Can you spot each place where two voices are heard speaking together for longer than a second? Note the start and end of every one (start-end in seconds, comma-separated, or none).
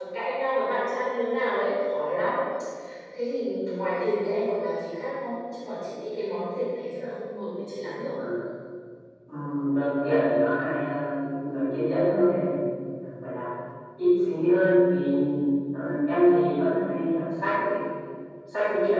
none